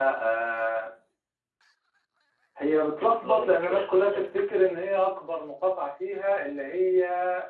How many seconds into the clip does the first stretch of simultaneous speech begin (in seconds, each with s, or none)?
2.9 s